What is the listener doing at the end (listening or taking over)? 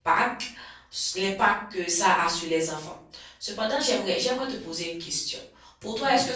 listening